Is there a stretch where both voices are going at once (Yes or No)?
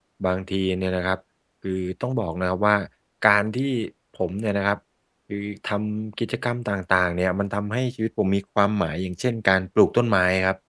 No